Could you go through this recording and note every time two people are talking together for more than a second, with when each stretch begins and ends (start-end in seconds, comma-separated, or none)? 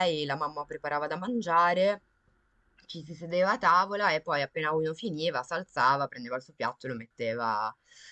none